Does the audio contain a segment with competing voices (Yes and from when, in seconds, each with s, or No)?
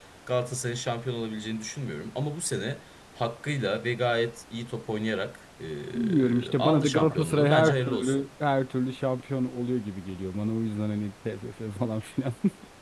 Yes, from 6.0 s